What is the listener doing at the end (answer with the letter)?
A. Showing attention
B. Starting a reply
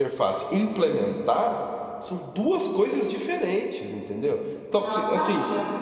A